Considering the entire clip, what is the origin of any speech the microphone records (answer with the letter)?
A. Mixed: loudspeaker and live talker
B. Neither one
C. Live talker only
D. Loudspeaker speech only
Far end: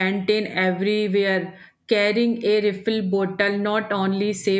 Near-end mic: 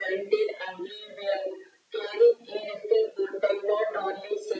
D